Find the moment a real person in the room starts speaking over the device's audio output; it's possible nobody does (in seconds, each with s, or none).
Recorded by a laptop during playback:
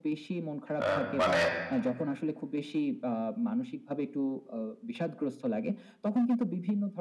0.8 s